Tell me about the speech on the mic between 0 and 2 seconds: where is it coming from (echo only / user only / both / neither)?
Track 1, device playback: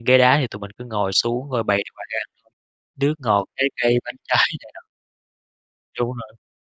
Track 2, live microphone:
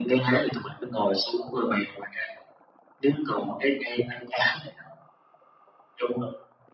echo only